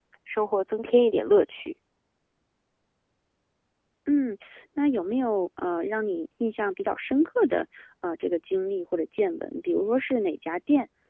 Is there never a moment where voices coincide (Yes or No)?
Yes